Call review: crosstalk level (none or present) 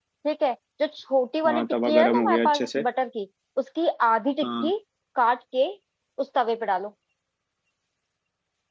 present